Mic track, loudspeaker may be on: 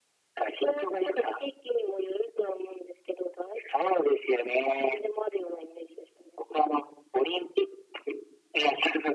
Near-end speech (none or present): none